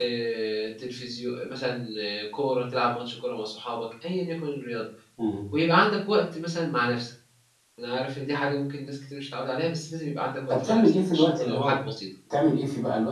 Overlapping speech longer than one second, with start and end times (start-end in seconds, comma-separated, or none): 10.5-11.8